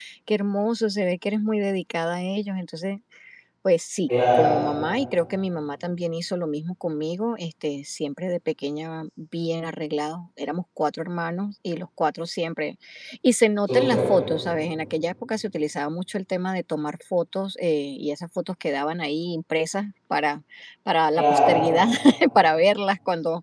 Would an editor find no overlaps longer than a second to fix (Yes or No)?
Yes